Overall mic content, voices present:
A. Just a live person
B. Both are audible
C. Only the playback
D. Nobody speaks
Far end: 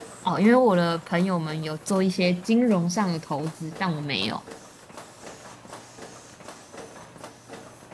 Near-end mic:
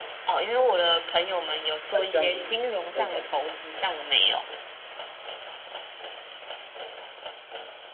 B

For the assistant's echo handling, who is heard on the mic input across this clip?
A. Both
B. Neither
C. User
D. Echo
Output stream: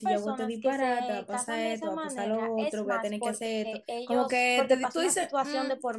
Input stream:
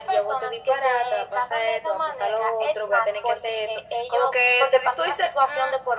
D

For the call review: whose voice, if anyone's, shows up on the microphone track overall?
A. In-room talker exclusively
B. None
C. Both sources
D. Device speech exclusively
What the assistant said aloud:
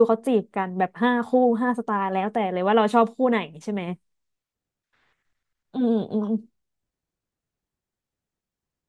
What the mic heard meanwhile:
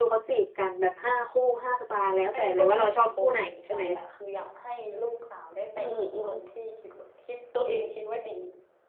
C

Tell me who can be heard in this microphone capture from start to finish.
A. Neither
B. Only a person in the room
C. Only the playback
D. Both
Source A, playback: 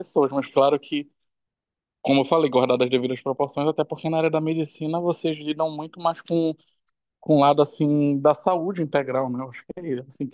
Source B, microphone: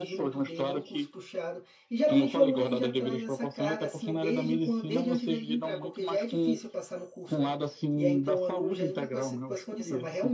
D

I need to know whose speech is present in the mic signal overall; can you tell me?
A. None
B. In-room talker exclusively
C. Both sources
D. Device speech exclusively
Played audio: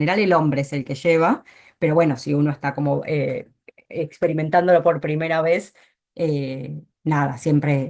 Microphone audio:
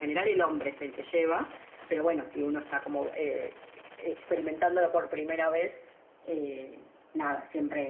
D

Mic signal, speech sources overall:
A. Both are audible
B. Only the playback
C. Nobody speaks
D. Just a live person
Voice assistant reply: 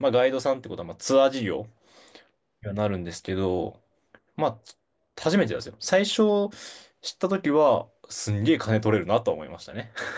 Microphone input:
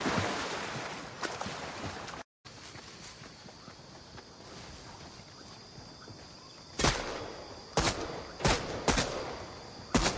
C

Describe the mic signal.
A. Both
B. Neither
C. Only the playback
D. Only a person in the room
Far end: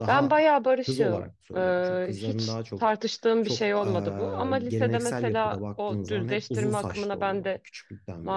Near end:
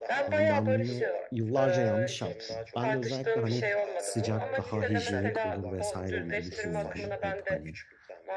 A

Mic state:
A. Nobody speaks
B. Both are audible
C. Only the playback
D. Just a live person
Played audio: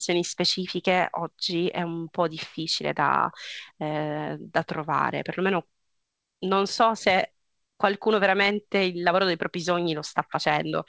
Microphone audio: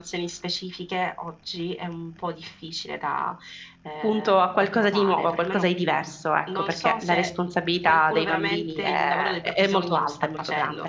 B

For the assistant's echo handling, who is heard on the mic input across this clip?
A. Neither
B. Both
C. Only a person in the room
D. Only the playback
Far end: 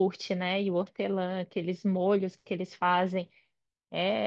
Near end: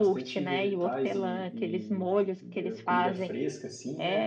B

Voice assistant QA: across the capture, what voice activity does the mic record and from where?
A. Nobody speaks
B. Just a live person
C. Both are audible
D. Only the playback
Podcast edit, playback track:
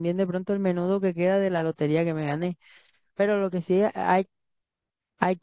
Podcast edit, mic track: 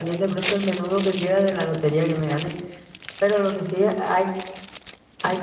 D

